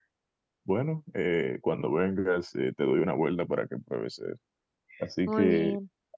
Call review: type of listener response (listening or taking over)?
listening